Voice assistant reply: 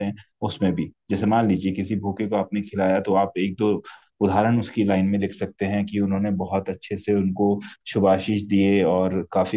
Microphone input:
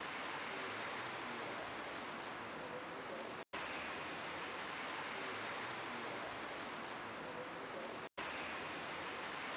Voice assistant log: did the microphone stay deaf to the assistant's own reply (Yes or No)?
Yes